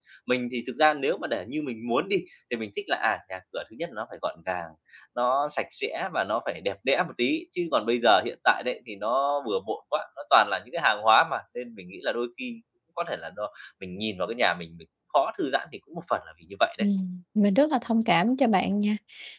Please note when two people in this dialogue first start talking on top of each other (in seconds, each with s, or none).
none